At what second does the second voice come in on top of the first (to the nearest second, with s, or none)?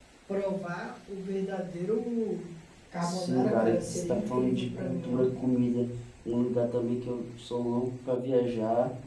3 s